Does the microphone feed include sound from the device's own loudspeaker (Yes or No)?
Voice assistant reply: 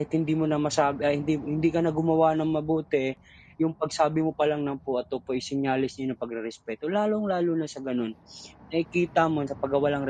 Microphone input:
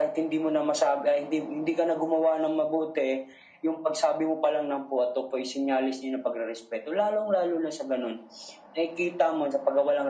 Yes